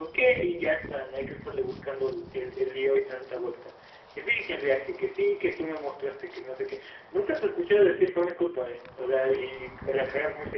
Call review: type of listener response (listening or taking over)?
taking over